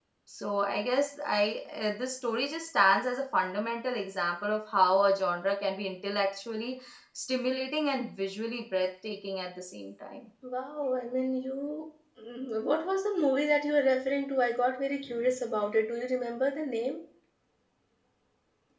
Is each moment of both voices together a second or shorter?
Yes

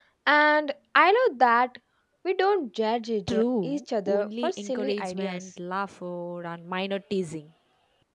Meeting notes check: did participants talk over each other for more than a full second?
Yes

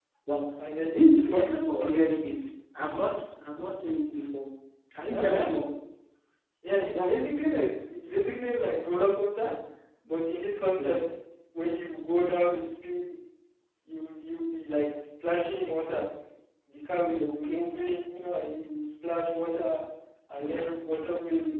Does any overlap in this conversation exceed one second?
Yes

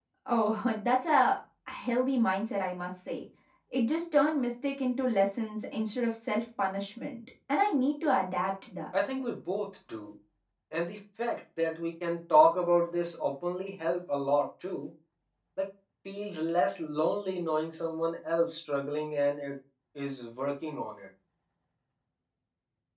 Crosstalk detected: No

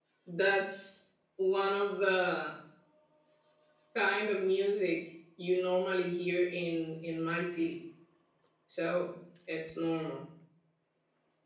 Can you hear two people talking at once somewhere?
No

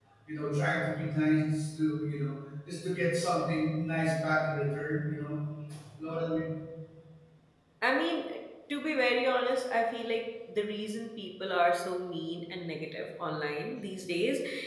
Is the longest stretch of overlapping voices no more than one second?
Yes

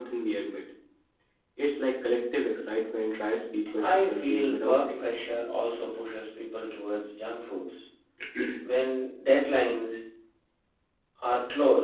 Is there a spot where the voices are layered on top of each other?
Yes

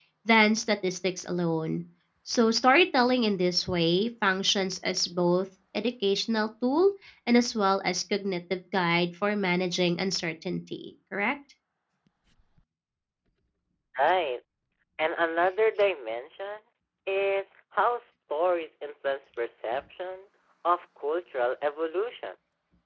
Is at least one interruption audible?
No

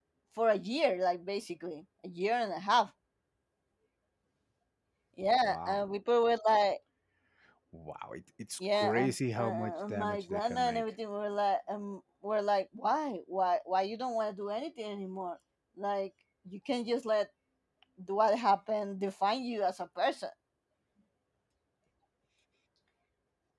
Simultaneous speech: Yes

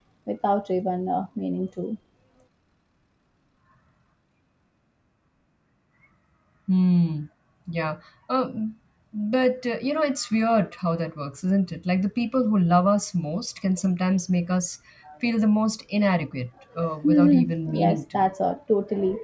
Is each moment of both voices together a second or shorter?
No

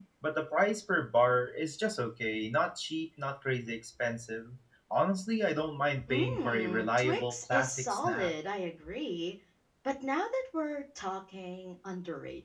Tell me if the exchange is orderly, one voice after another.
No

